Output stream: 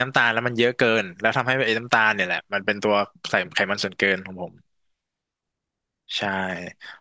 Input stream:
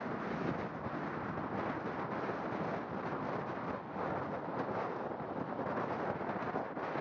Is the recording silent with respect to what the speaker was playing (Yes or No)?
Yes